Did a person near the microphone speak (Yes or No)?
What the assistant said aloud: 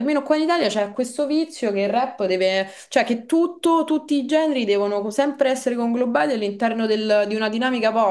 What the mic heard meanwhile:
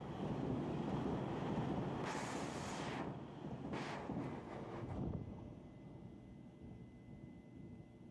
No